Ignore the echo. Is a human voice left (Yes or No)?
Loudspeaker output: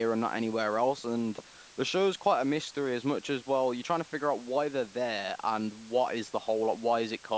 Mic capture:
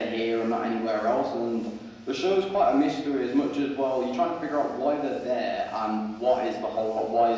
No